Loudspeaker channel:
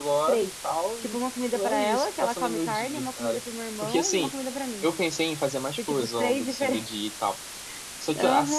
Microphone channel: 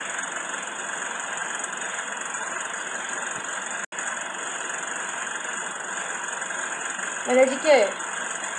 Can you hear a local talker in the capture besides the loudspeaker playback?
Yes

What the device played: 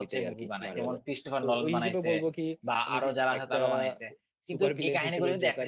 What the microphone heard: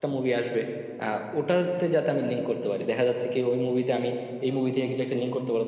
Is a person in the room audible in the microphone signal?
Yes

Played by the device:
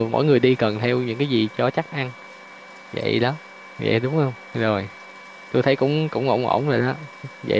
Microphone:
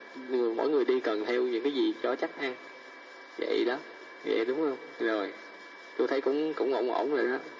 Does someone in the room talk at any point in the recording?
No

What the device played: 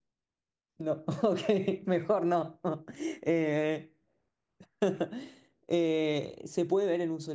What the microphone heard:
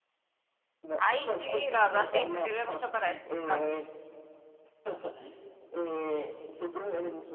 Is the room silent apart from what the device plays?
No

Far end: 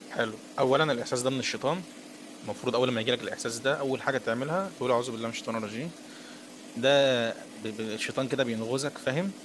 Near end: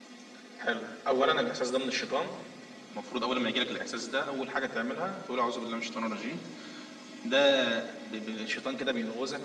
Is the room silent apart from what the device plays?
Yes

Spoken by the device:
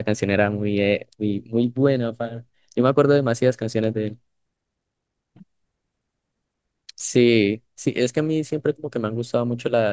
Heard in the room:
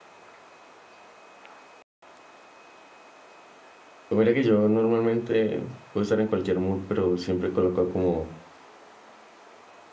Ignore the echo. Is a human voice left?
Yes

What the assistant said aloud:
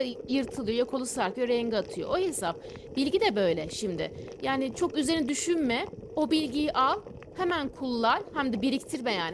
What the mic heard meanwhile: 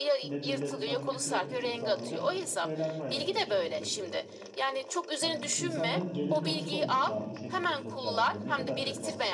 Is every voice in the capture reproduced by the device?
No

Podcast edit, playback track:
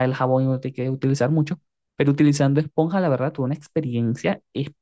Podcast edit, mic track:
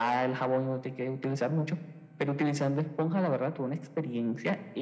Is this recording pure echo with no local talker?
Yes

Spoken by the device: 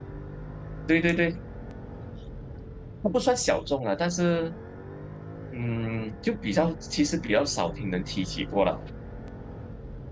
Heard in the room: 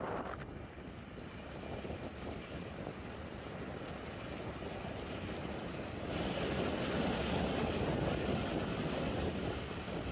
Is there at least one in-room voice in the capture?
No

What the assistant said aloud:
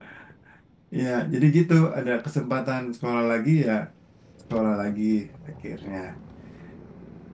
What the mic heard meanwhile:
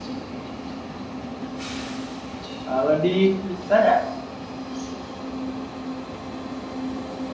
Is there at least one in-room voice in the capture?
Yes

